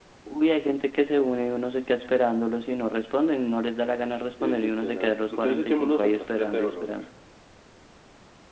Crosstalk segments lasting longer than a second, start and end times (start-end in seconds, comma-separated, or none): 4.4-7.0